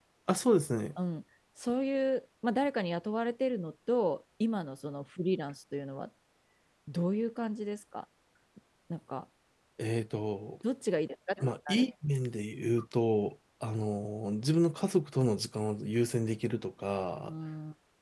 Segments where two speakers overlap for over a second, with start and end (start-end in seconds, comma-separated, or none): none